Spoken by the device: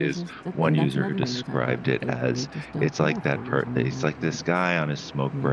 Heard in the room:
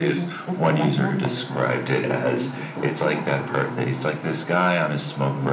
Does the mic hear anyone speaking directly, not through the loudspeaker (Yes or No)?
No